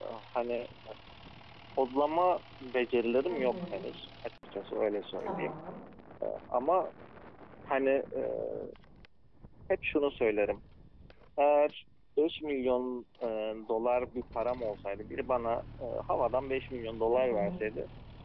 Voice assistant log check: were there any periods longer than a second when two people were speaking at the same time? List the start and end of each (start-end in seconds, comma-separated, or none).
none